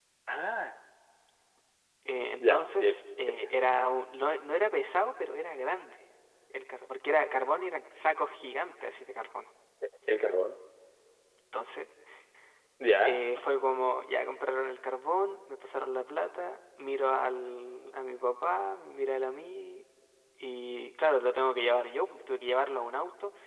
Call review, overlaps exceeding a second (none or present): none